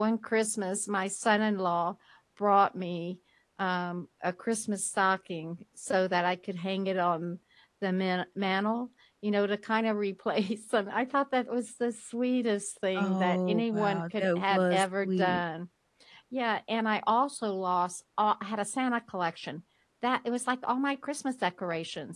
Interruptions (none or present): present